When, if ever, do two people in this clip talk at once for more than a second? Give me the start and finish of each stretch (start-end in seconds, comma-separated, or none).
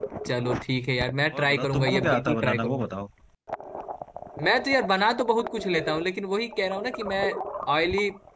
1.3-2.9